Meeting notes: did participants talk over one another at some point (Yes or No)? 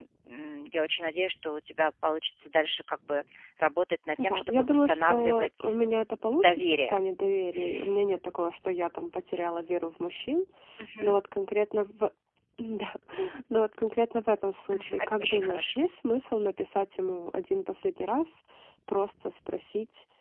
Yes